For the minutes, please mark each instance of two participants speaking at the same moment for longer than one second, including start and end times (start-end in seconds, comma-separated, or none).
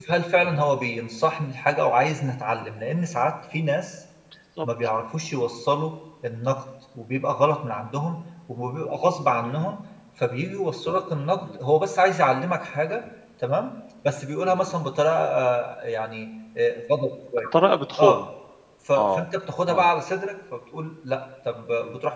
none